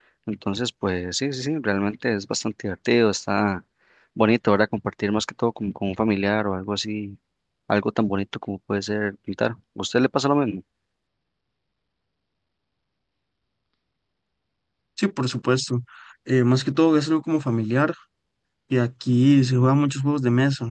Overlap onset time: none

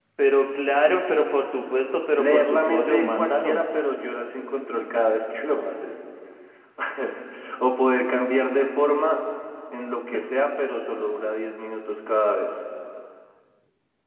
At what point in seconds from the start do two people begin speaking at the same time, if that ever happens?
2.2 s

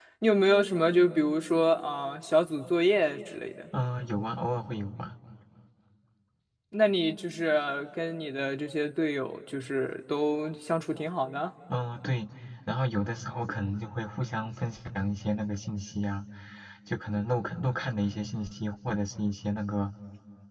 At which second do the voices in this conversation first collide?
none

